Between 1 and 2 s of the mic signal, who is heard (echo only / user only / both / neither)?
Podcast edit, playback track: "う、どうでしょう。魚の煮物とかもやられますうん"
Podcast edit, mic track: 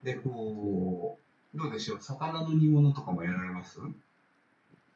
echo only